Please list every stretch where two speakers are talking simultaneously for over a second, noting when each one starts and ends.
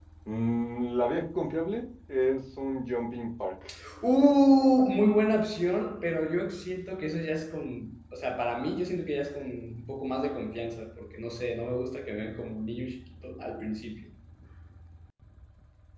none

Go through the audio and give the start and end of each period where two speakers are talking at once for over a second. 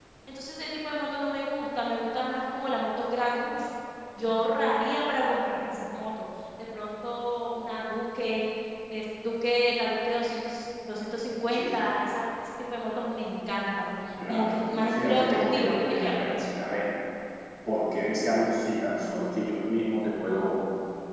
14.3-16.4

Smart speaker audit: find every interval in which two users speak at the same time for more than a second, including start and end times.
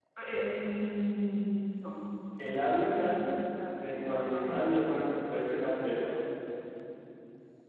3.8-5.0

